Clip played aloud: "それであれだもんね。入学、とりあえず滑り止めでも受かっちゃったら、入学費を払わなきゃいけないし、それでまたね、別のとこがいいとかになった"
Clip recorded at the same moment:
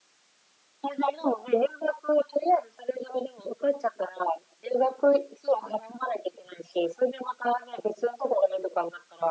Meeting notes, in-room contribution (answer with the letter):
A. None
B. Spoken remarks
A